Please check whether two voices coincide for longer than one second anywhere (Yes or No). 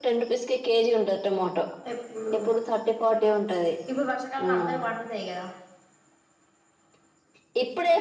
No